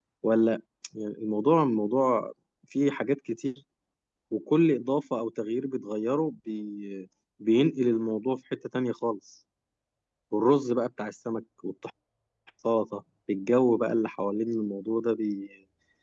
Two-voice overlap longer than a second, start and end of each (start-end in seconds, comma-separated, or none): none